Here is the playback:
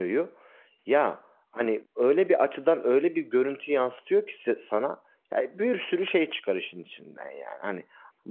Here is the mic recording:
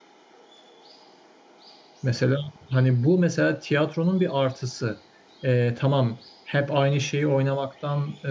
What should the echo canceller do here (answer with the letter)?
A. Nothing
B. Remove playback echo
A